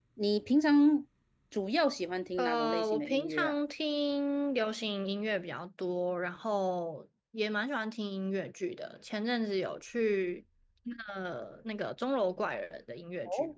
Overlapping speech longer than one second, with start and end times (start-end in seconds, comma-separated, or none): 2.4-3.6